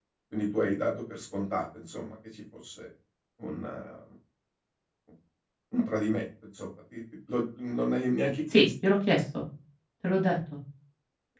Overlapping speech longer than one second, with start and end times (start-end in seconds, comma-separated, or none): none